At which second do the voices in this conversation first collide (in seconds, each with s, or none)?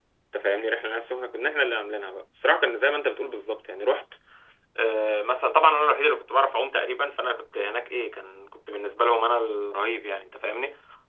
none